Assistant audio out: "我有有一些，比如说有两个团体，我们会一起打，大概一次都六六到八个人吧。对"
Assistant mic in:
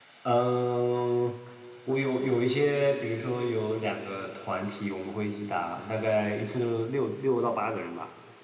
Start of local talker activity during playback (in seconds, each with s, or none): none